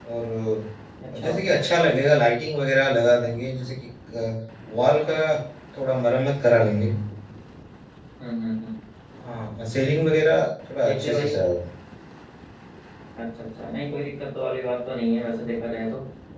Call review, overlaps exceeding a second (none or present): none